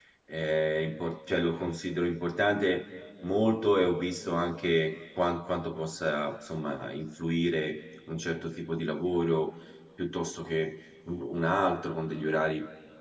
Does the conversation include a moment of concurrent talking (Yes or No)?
No